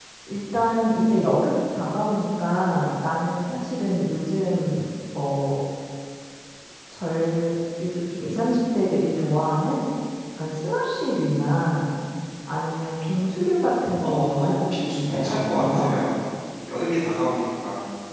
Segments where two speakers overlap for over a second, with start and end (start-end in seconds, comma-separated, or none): 14.0-15.9